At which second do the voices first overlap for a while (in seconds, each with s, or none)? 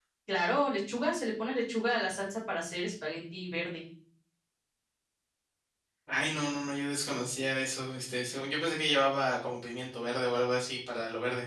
none